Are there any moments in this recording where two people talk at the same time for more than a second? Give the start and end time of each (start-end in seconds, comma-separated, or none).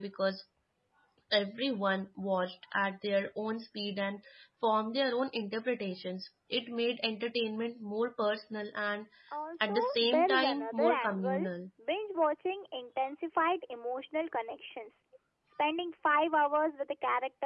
9.6-11.4